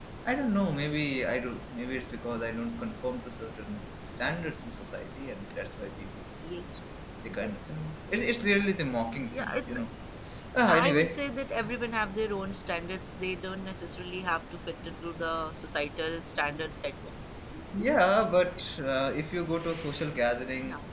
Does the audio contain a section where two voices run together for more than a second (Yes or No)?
No